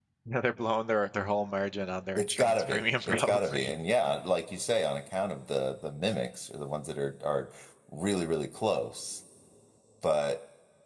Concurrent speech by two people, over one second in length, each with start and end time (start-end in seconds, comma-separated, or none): 2.1-3.8